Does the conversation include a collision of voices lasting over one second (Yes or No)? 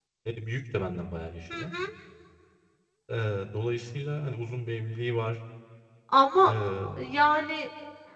No